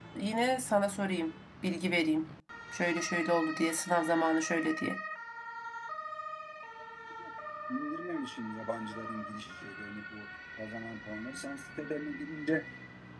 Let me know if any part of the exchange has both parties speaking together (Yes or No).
No